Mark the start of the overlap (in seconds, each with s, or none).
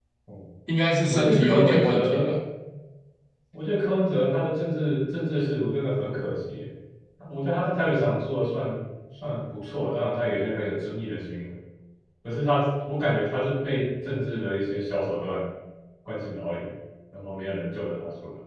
1.1 s